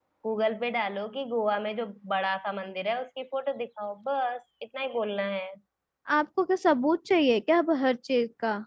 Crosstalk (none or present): none